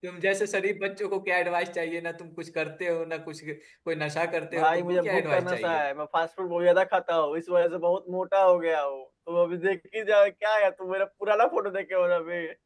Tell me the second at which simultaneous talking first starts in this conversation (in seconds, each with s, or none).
4.5 s